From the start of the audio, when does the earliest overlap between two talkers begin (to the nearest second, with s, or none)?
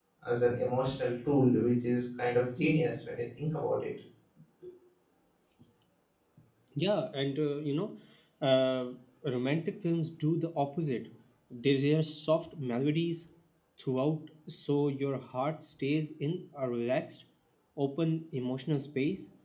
none